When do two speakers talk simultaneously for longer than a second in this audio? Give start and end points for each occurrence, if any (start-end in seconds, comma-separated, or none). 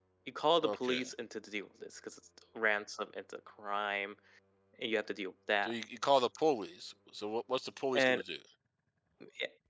none